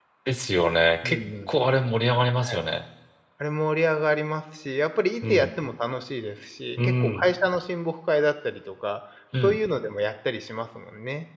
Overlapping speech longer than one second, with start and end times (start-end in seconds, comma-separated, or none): none